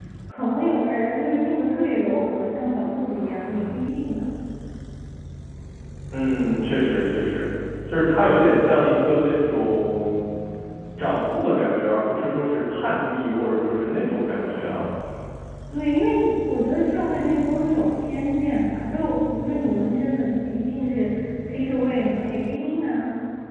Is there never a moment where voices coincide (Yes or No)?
Yes